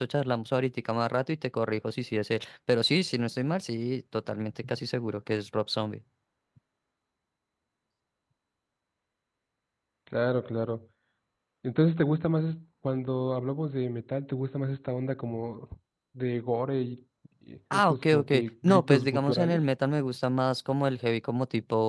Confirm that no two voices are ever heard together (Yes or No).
No